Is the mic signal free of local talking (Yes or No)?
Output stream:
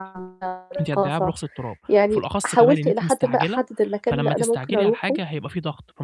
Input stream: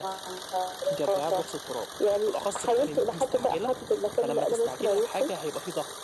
Yes